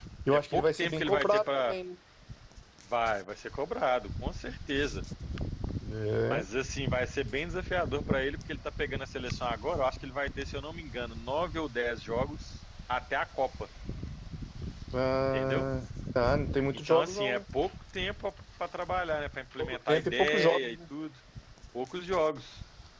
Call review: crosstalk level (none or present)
present